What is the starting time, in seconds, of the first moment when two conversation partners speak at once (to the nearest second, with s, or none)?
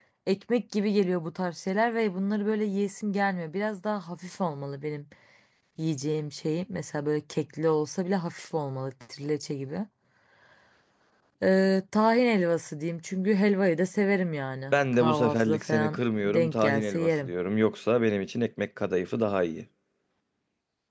15 s